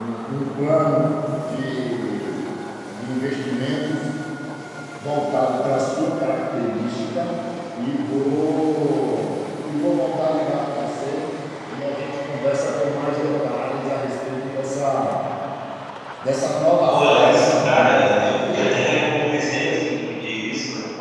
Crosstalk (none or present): present